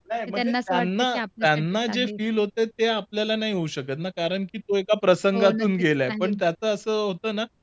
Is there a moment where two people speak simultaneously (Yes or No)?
Yes